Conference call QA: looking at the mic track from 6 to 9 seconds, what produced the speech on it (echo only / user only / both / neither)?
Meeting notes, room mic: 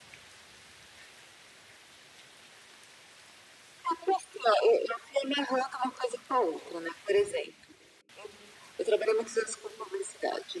echo only